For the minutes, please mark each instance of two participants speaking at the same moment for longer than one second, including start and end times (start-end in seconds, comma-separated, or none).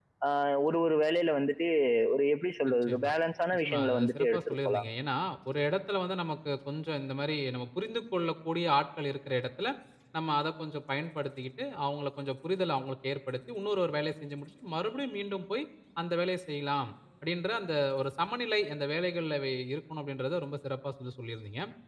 3.6-4.8